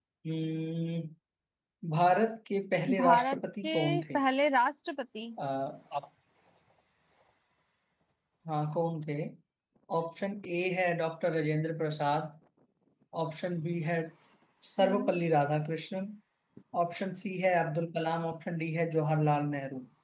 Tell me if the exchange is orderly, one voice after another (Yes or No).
No